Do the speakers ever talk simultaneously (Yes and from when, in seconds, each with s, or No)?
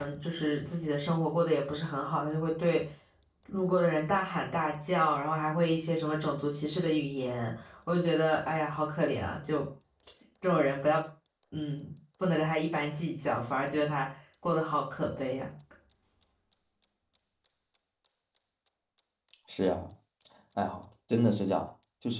No